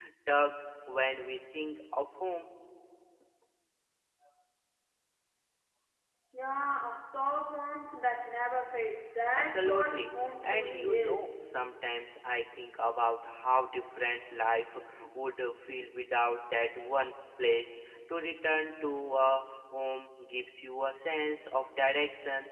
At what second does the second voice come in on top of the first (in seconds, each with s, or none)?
9.3 s